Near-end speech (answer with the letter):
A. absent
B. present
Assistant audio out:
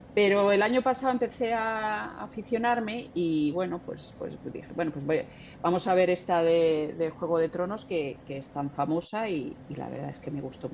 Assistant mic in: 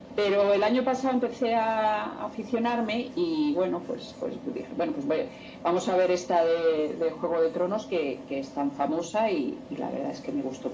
A